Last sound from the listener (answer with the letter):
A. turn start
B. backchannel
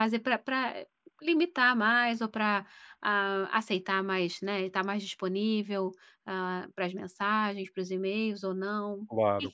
A